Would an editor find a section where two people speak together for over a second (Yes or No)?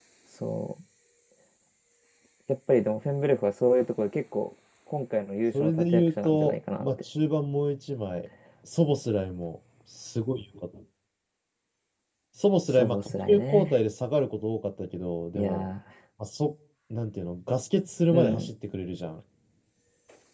Yes